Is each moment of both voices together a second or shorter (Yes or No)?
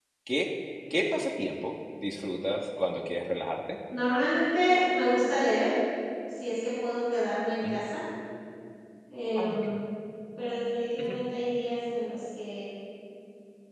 Yes